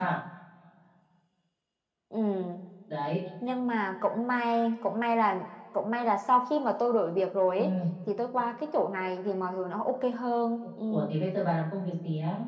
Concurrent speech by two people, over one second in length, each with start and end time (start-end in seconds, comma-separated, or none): none